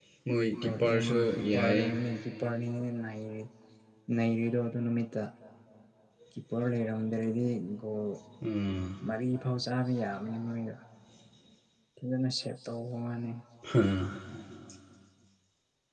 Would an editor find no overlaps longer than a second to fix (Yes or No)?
No